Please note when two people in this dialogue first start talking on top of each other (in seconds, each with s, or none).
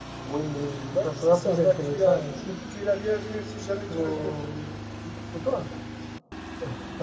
0.9 s